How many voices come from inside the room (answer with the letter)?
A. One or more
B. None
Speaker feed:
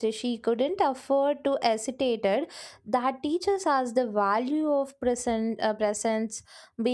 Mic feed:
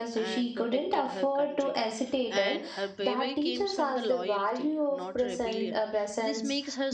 A